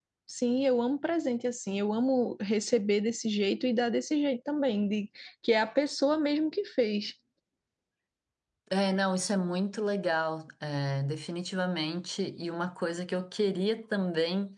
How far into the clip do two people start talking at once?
none

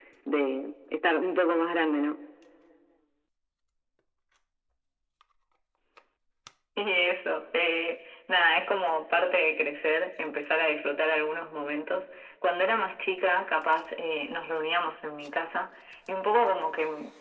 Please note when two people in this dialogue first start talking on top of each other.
none

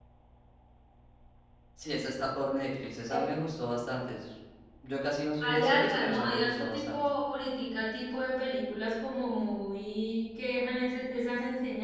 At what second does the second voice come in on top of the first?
5.4 s

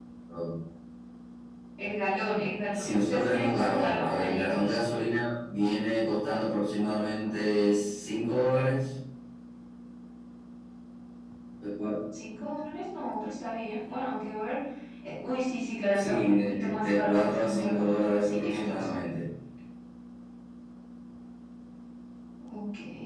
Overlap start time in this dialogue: 2.7 s

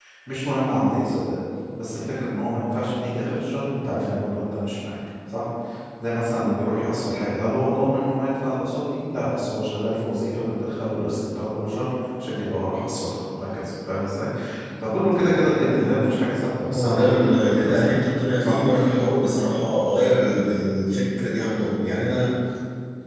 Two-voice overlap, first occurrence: 16.7 s

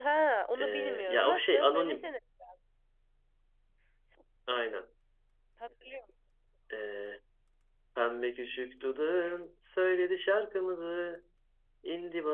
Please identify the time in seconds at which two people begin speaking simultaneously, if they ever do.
0.6 s

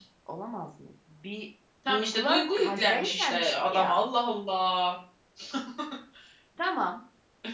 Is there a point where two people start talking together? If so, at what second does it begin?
1.9 s

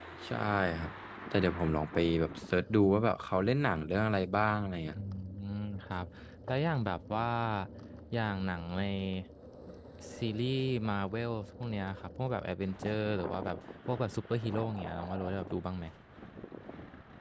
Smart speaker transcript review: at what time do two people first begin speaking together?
none

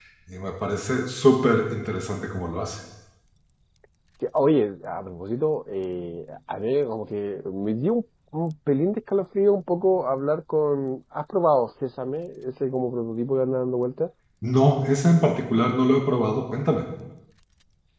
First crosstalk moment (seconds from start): none

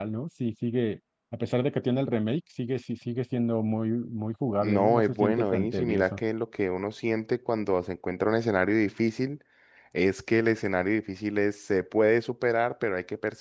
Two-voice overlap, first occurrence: 4.6 s

